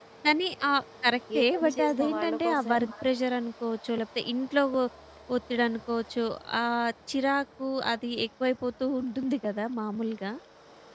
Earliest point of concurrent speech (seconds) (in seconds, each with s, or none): 1.3 s